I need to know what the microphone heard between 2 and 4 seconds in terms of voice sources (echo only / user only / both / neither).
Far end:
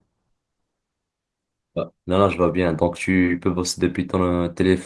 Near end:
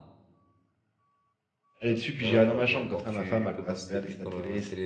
both